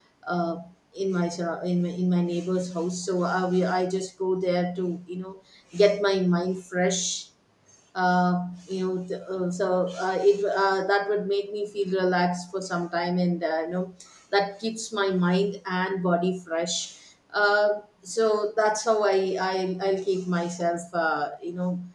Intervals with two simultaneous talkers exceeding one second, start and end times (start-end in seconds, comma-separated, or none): none